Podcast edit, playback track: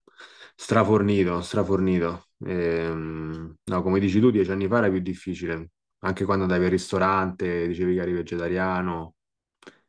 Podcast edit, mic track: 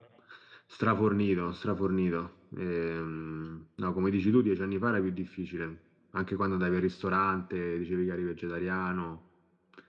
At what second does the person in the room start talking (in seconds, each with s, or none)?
none